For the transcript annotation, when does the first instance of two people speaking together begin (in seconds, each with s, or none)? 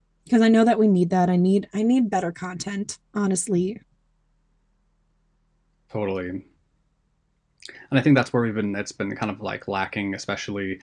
none